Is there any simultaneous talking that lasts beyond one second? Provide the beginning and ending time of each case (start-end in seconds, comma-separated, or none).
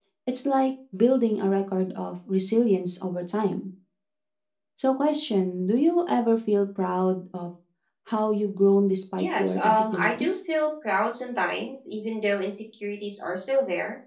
9.2-10.4